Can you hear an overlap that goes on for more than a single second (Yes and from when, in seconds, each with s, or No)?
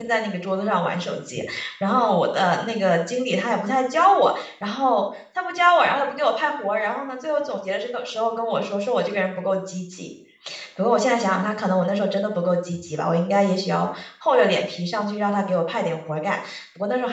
No